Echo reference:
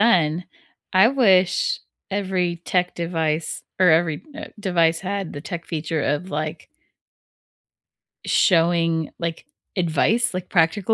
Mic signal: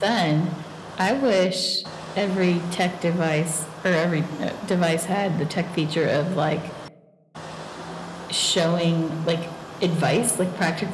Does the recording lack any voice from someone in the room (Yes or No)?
Yes